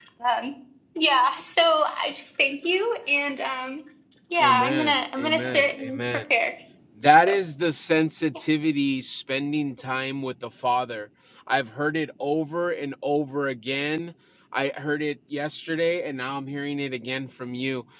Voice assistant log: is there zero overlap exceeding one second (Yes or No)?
No